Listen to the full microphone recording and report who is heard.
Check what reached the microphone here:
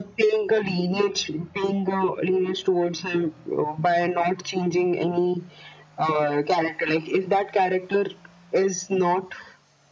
echo only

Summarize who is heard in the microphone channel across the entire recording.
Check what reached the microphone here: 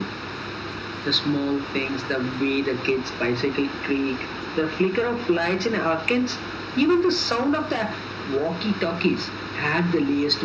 echo only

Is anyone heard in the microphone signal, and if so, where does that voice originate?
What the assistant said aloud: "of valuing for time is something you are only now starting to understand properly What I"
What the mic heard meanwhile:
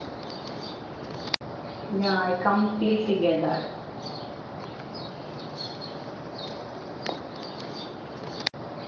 user only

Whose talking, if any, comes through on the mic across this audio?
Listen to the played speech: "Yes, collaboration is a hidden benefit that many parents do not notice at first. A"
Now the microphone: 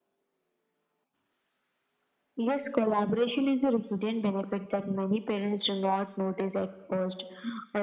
echo only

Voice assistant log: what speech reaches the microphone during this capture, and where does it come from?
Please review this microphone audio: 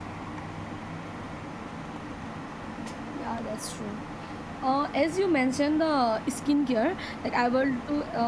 user only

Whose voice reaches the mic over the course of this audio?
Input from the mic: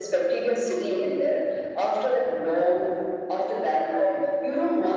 echo only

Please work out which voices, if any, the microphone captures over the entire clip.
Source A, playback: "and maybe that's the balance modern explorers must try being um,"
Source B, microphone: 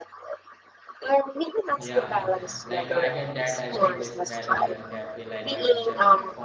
both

